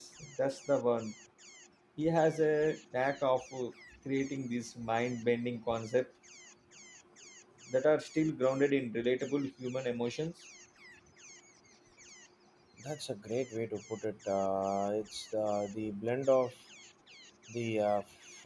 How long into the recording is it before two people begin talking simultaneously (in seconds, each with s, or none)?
none